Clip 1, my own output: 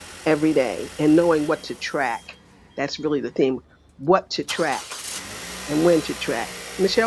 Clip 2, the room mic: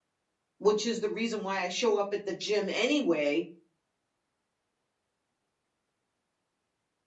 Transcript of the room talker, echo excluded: which is the reason why I show up at the gym anyway.

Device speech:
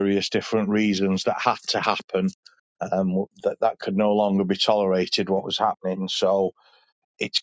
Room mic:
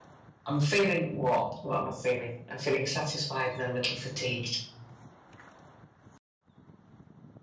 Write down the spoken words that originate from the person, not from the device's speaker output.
I'm feeling what? What am I feeling? I'm feeling satisfied, and a little fatigued.

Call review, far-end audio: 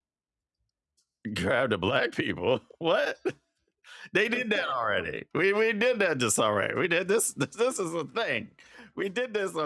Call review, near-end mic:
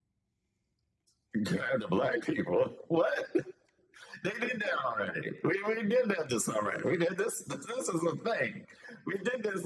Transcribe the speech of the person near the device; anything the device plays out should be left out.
none

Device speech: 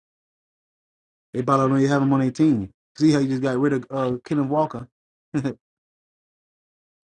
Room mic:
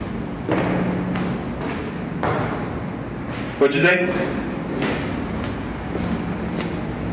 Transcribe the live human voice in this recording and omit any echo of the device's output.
What'd you say?

